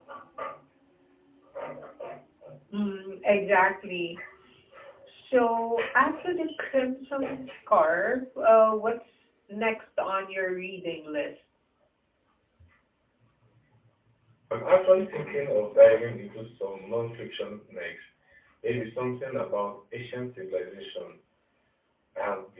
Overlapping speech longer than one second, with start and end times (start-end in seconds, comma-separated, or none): none